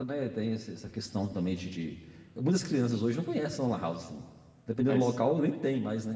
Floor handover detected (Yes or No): No